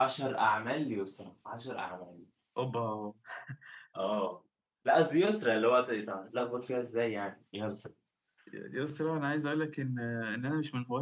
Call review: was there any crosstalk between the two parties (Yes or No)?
No